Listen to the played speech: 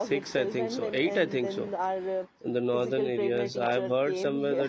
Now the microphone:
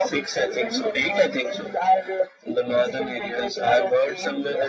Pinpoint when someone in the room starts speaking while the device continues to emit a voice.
none

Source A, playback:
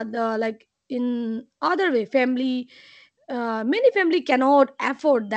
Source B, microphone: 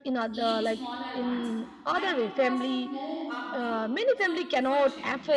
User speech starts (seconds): 0 s

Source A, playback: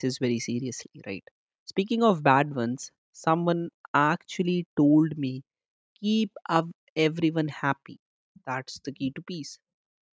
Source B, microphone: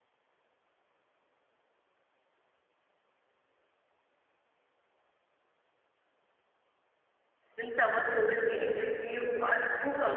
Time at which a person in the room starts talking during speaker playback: 8 s

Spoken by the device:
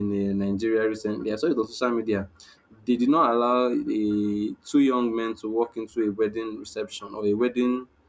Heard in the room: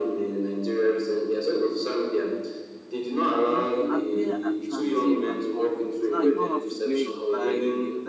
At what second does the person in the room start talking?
3 s

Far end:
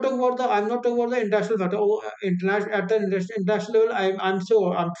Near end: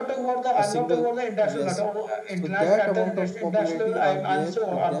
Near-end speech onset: 1 s

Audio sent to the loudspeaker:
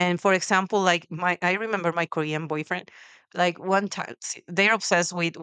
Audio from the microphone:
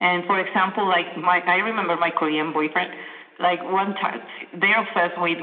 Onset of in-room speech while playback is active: none

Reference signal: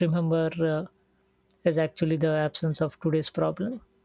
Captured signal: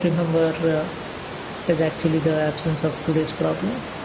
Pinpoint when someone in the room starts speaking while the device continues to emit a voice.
none

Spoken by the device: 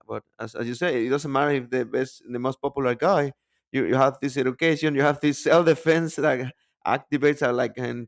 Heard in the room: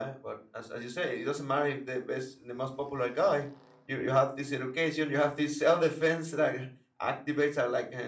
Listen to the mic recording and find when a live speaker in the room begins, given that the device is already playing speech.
none

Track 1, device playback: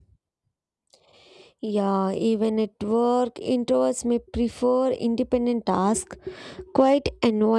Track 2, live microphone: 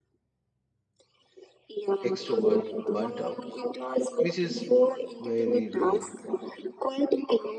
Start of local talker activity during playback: 2 s

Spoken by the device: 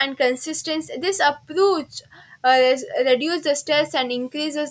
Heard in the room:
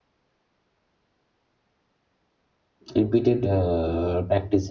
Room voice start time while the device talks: 3 s

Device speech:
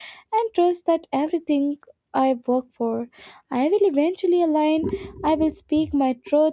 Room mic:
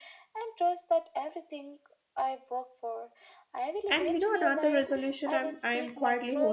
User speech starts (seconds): 4 s

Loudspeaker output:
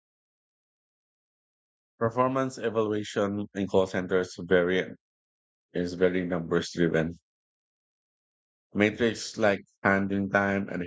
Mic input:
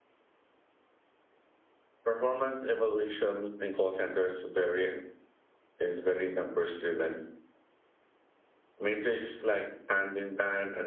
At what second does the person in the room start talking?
none

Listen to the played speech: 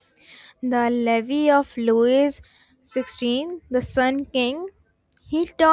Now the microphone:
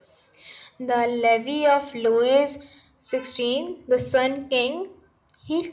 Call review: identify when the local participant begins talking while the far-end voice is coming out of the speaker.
none

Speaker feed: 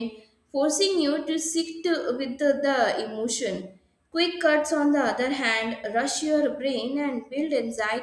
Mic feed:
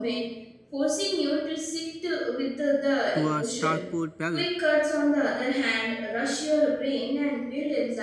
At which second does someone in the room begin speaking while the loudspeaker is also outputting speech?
3 s

